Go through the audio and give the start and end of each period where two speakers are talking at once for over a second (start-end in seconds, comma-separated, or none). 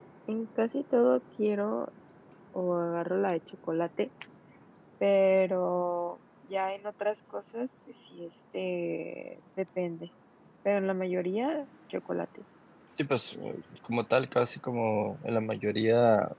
none